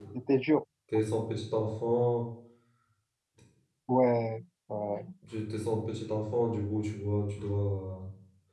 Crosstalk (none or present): none